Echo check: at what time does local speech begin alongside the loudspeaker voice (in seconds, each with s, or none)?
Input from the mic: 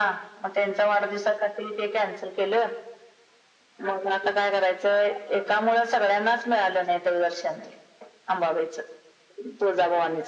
none